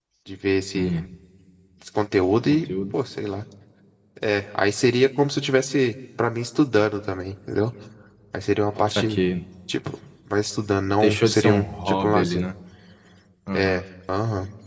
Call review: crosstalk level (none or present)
present